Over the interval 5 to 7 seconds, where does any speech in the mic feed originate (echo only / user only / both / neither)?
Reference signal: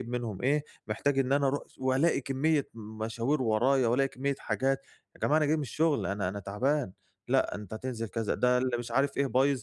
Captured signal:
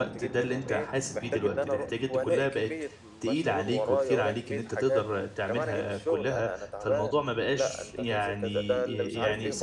both